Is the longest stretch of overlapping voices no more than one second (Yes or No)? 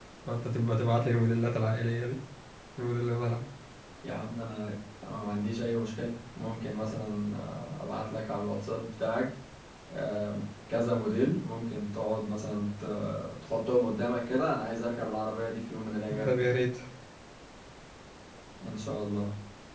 Yes